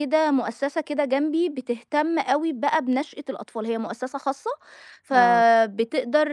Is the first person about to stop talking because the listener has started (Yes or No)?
No